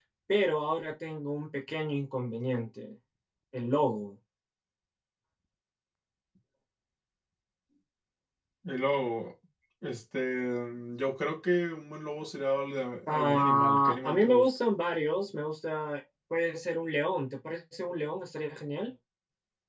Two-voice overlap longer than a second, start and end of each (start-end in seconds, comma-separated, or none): 13.1-14.5